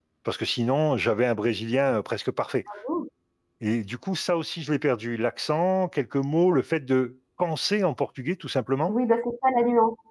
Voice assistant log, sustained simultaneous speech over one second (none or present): none